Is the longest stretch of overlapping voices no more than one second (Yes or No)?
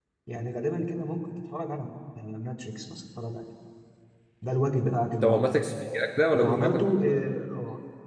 Yes